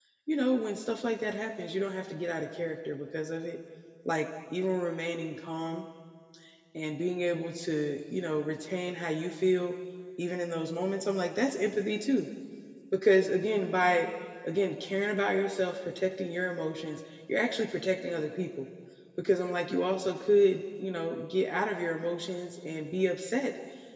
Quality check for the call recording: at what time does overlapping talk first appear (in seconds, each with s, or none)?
none